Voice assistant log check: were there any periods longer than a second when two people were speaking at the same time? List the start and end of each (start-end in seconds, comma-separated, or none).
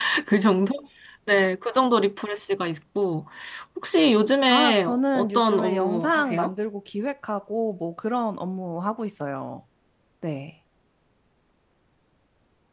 4.5-6.5